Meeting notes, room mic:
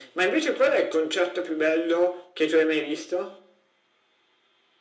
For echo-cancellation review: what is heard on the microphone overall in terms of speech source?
echo only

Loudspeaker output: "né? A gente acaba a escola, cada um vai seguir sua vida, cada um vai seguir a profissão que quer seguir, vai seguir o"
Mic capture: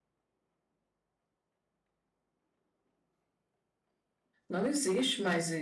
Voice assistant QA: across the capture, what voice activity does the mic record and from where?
user only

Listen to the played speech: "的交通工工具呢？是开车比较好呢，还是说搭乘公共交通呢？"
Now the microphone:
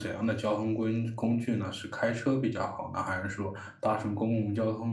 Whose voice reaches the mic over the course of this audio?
echo only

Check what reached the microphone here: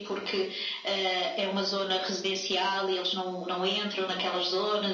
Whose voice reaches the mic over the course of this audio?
echo only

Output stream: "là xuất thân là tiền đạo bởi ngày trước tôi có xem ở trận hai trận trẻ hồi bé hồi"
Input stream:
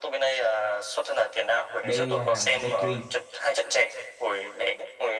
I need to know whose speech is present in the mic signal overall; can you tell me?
both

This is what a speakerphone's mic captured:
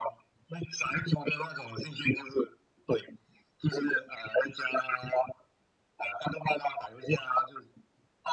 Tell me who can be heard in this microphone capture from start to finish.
echo only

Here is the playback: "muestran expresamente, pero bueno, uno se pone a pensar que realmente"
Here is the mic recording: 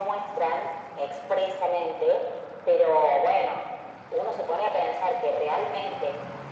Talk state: echo only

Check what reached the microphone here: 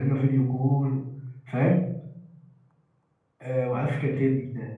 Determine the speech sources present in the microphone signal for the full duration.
echo only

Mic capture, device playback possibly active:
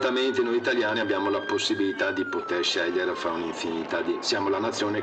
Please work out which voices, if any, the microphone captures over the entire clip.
echo only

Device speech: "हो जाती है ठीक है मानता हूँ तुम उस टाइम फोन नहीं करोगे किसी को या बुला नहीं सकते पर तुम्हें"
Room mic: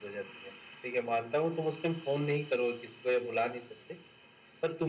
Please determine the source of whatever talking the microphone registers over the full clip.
echo only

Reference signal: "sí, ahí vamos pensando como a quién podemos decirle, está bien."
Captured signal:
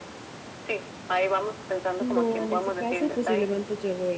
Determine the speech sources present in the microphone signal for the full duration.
both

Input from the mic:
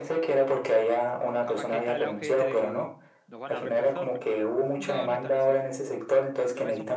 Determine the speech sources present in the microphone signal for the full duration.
both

